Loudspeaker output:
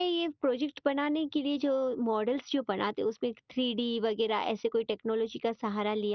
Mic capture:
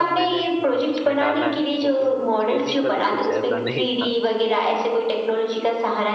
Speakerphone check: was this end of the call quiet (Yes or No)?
No